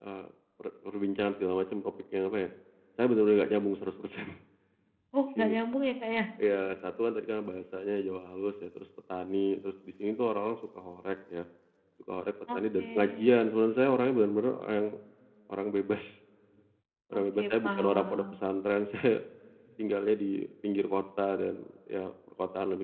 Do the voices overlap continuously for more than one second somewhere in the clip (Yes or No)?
Yes